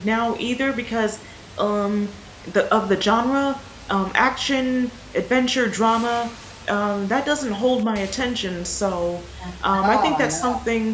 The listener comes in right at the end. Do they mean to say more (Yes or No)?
No